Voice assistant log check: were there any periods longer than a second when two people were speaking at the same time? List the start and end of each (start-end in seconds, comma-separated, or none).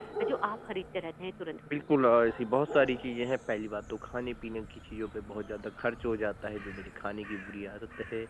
none